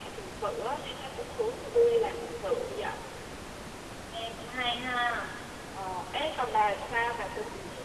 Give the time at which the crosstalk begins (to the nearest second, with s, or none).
none